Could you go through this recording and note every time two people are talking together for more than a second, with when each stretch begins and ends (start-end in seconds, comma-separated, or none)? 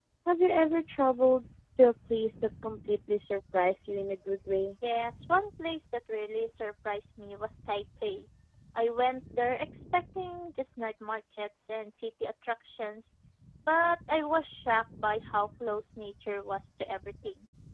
none